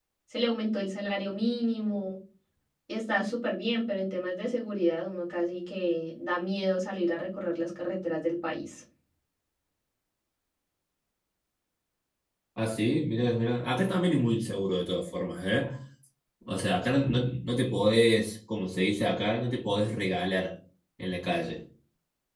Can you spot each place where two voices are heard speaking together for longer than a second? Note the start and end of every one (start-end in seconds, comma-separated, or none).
none